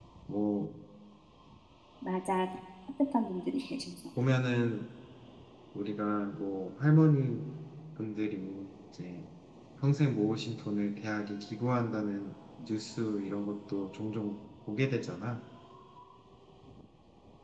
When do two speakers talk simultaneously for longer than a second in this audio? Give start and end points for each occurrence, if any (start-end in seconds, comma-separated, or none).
none